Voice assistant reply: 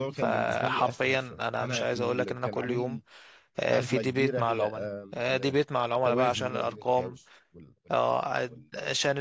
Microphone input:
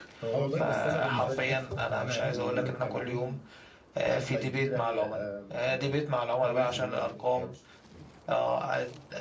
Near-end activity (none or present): present